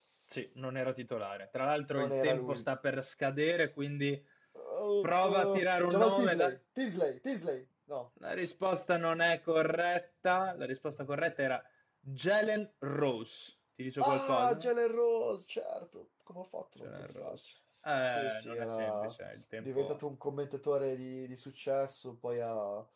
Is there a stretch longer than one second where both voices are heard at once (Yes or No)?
Yes